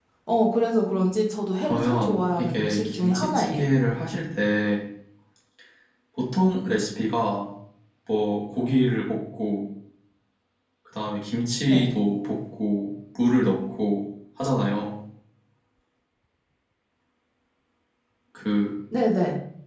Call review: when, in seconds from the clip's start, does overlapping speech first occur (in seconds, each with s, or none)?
1.6 s